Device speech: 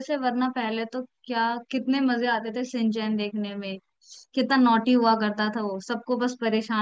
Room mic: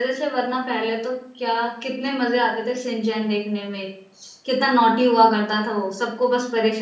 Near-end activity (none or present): none